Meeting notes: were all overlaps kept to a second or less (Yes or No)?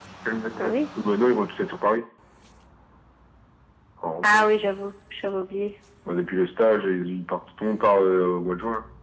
Yes